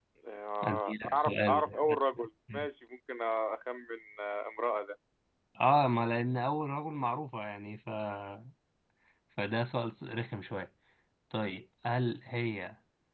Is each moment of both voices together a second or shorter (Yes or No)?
No